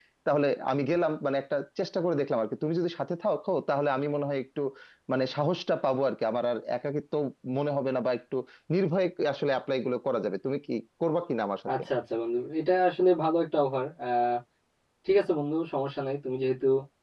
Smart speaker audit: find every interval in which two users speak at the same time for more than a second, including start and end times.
none

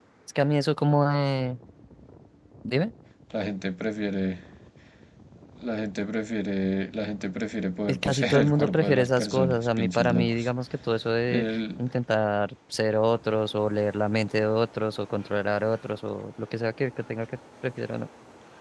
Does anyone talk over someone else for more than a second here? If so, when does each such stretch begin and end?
7.9-10.5

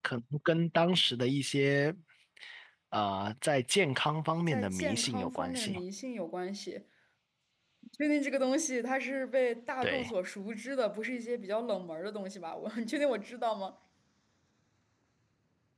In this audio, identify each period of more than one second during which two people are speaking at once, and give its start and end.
4.5-5.8

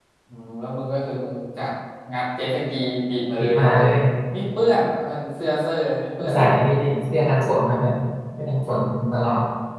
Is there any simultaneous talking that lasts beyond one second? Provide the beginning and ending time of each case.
none

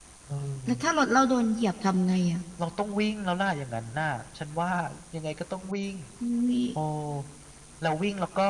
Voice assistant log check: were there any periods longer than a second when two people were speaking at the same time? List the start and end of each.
none

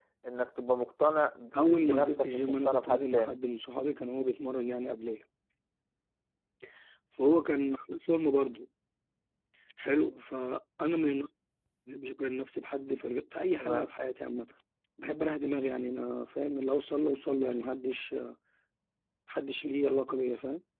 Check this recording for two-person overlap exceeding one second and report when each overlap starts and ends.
1.6-3.4

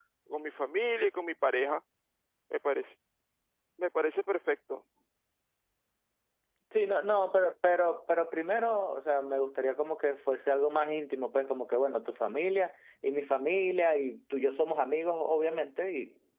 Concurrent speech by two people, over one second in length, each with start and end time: none

